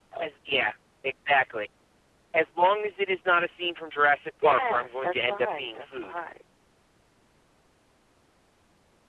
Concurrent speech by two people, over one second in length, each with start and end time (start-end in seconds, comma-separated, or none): 4.4-6.2